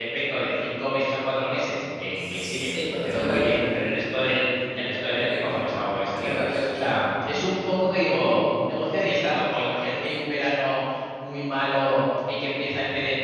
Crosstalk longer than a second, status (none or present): present